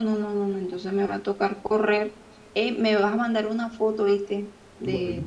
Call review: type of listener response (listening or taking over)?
listening